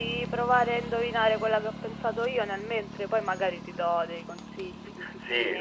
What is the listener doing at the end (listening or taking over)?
taking over